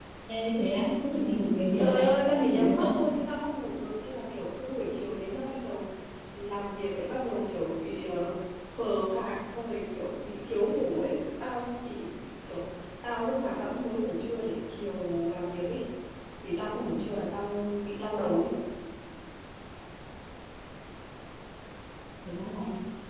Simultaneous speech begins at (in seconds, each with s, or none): 1.8 s